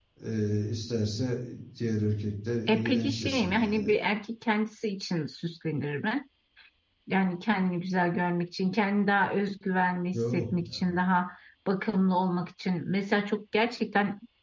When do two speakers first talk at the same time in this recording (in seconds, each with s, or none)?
2.7 s